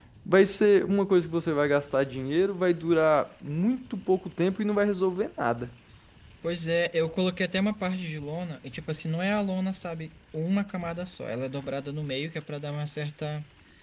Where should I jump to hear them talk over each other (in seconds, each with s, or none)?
none